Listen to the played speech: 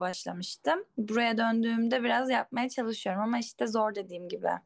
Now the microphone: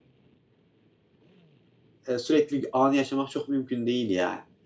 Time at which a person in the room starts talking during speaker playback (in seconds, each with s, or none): 2.1 s